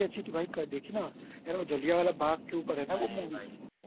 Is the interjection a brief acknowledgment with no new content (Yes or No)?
No